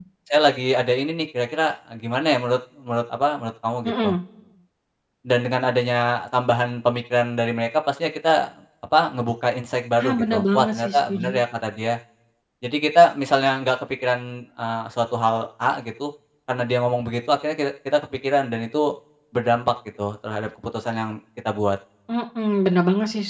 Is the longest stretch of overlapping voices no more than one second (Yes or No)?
No